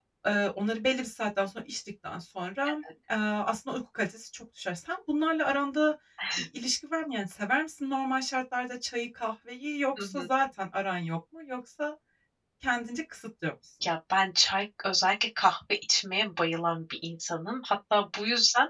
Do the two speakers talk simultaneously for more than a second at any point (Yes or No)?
No